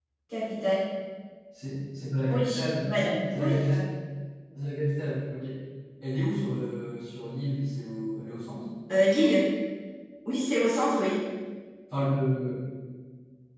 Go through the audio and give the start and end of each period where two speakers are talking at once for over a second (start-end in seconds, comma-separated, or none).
2.3-3.6